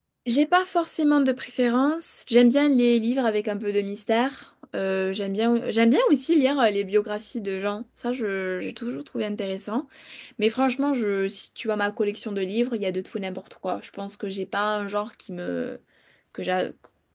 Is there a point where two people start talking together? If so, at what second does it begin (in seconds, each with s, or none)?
none